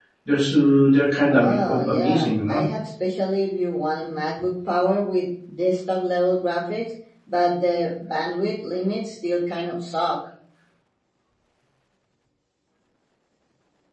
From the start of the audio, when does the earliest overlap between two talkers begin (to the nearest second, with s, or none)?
1 s